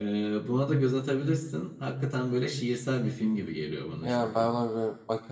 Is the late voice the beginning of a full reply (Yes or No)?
Yes